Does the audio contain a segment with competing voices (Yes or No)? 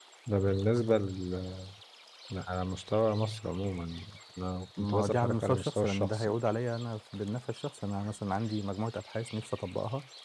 Yes